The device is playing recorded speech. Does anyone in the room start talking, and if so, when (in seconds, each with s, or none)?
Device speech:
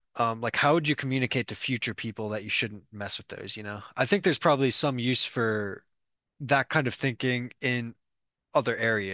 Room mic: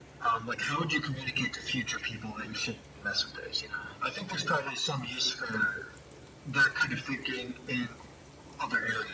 none